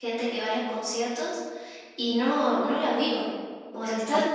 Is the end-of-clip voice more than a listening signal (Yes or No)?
No